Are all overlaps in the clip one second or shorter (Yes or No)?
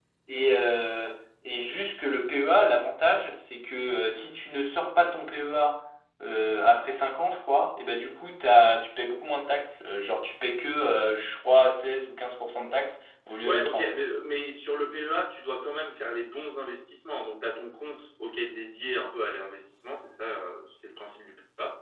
Yes